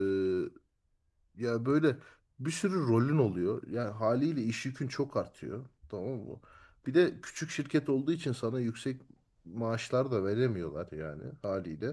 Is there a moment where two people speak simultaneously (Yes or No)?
No